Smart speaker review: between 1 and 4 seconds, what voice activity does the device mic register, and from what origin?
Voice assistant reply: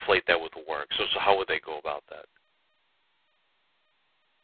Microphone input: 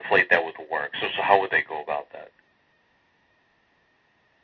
echo only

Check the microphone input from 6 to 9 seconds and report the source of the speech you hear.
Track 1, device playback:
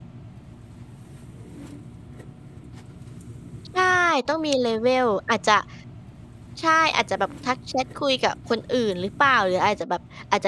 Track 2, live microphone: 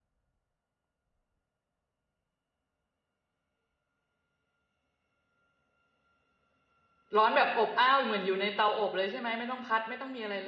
user only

